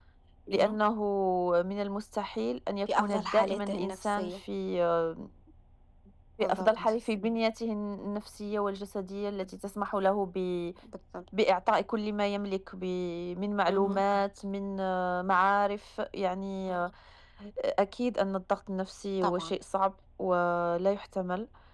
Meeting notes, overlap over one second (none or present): present